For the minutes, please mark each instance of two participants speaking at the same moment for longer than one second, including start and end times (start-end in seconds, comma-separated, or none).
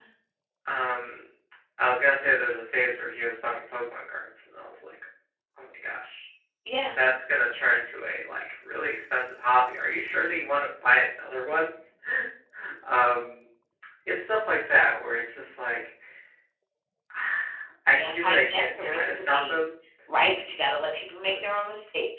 17.9-19.6